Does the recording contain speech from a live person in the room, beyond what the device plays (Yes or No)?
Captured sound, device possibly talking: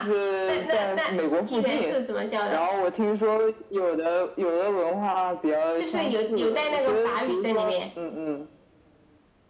No